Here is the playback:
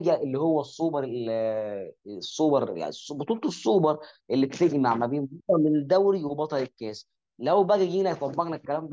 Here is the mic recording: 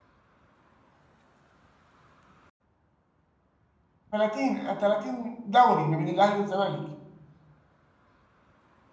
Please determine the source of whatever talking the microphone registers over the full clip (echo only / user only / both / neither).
user only